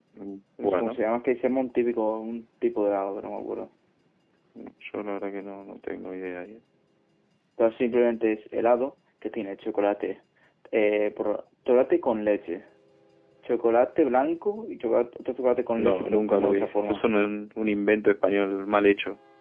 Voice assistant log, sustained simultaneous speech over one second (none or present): present